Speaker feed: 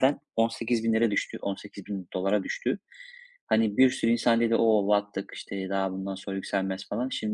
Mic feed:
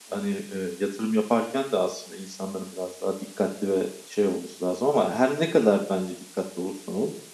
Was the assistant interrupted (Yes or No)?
Yes